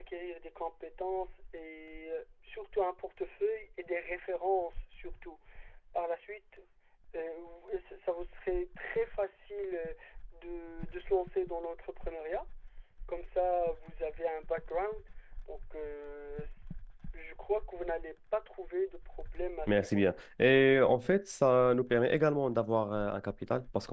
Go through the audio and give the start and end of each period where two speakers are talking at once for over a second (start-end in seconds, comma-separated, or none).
none